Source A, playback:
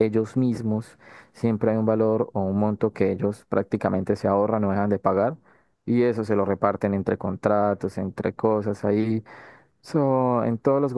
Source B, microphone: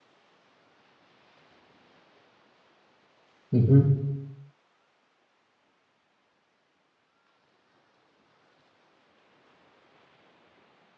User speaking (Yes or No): Yes